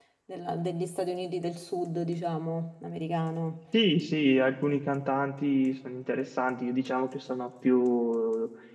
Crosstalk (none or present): none